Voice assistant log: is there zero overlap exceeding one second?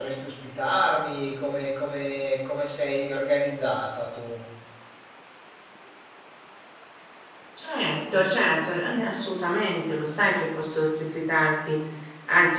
Yes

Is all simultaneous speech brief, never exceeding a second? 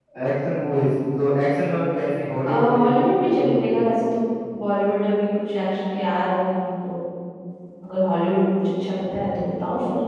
No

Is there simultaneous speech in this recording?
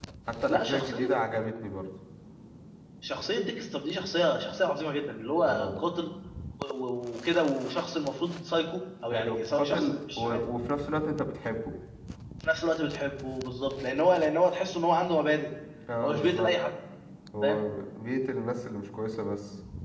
Yes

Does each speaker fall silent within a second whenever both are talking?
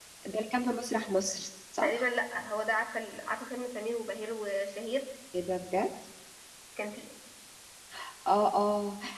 Yes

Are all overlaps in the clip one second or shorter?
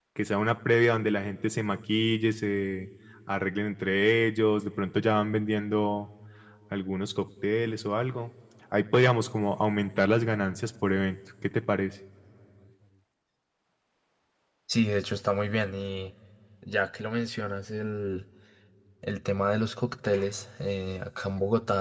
Yes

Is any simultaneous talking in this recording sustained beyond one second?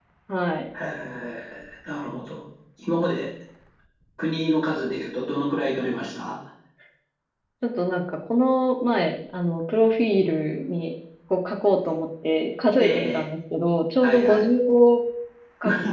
No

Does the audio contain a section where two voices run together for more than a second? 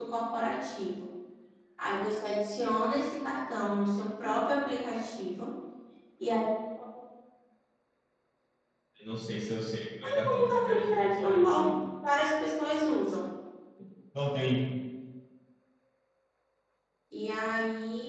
Yes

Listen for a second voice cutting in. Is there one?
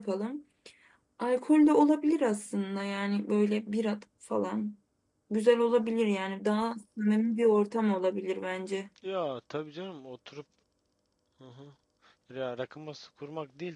No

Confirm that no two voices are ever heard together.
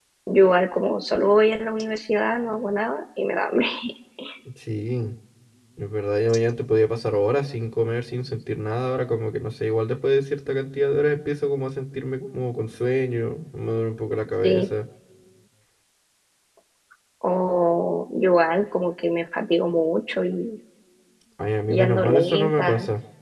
No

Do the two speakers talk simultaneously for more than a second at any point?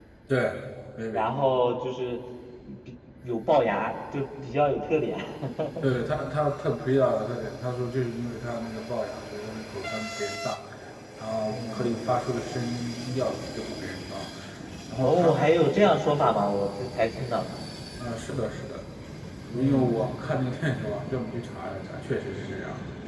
No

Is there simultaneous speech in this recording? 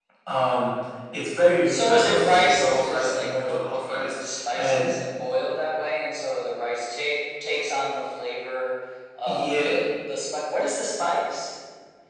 Yes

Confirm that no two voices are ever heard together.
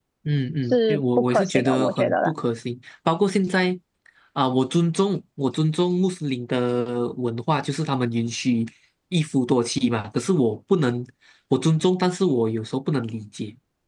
No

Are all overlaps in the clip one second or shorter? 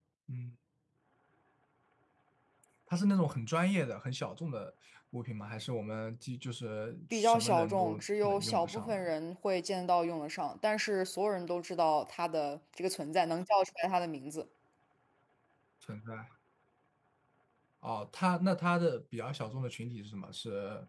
No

